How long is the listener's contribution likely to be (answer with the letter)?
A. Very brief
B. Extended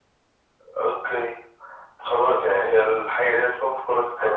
B